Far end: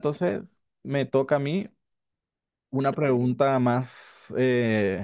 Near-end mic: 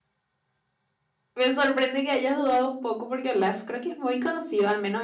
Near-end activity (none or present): present